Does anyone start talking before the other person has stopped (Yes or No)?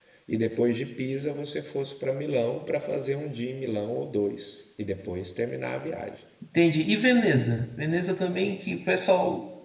No